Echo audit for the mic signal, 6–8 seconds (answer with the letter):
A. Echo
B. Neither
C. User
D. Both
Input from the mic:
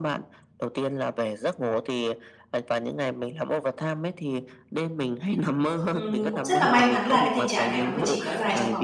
D